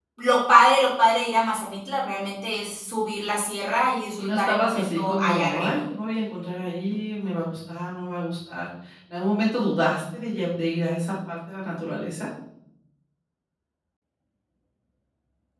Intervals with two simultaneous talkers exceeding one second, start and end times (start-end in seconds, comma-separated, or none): 4.2-5.8